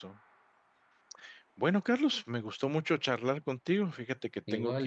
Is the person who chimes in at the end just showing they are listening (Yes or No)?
Yes